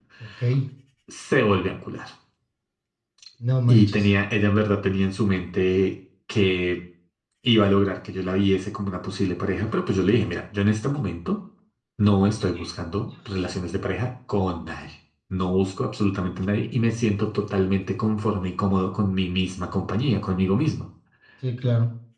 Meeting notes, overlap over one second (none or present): none